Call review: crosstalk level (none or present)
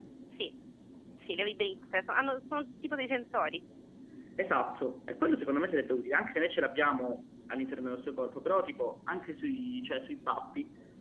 none